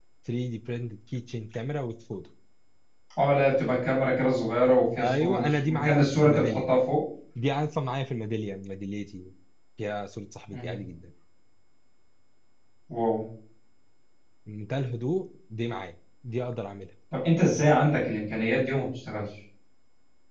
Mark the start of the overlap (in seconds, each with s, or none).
5.0 s